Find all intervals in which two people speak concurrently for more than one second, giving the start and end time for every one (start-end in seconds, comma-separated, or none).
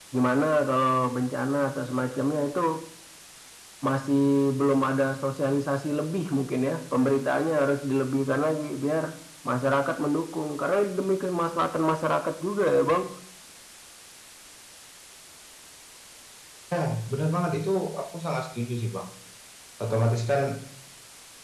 none